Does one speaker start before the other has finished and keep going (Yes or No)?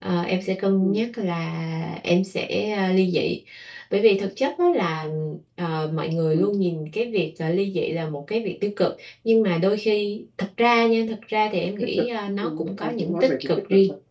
Yes